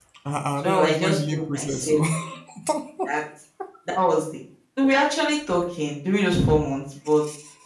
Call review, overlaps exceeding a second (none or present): present